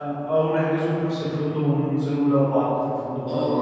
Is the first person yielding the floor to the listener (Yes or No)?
Yes